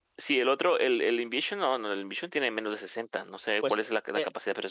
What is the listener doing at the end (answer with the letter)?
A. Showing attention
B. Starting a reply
B